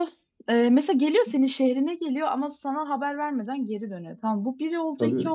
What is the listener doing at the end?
listening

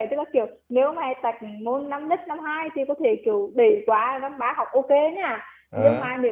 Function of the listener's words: listening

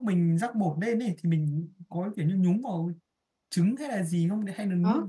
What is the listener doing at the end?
taking over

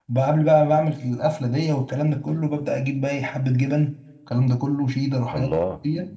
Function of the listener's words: listening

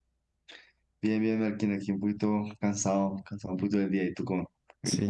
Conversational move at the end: taking over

